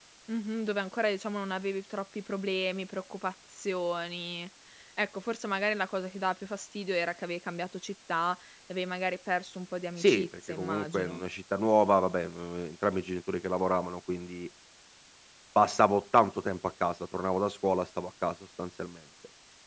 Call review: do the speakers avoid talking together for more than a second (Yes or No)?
No